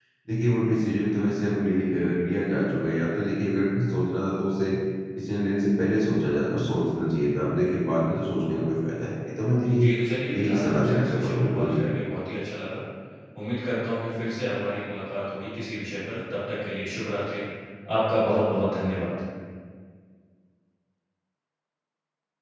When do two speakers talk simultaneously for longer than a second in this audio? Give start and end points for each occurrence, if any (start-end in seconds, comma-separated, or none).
10.3-11.8